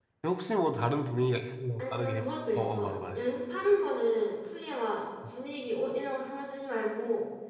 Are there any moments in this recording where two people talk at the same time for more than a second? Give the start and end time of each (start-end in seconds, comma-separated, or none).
1.8-3.2